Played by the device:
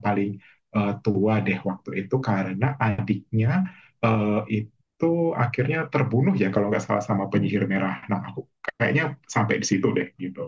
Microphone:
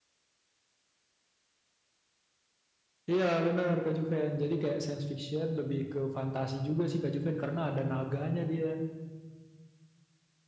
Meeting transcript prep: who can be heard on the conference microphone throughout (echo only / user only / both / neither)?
user only